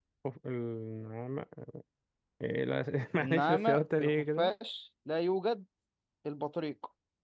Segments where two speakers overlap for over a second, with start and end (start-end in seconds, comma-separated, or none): 3.2-4.5